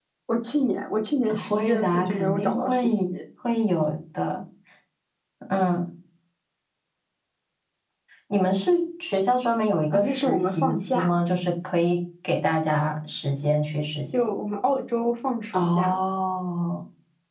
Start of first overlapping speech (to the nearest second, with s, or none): 1 s